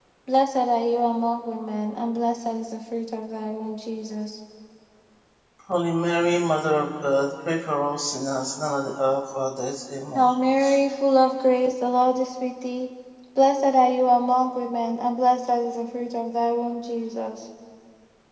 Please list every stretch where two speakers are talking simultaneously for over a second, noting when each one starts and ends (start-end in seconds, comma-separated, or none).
none